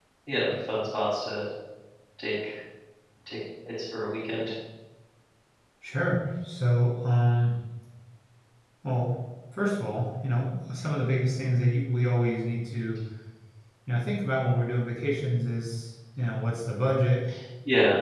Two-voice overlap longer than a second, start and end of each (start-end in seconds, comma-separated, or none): none